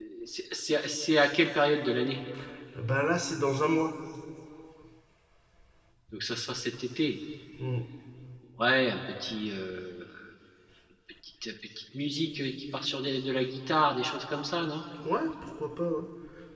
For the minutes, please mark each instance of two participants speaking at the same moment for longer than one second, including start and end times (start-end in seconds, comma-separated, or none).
none